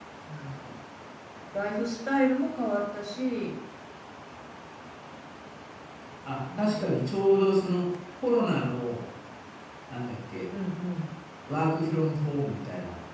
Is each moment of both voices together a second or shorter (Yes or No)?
Yes